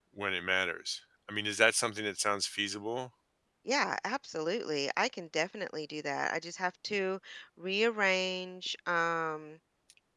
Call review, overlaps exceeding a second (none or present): none